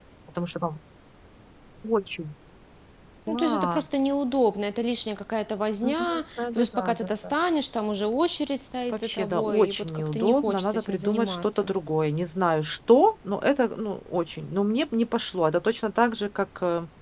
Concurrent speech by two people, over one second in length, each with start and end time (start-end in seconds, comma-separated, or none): 5.8-7.3, 8.9-11.7